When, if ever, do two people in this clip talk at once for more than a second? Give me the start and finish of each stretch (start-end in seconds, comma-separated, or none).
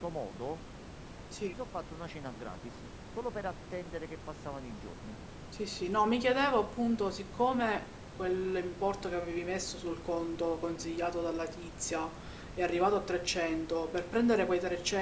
none